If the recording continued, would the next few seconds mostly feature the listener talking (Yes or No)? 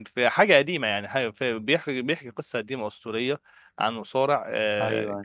No